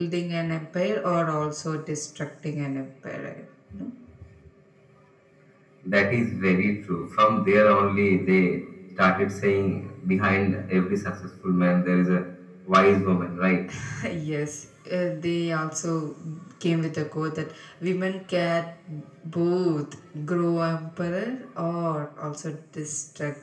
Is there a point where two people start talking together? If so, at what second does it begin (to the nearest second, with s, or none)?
none